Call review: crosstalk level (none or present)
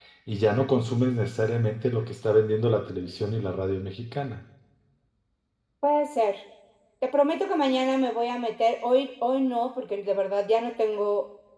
none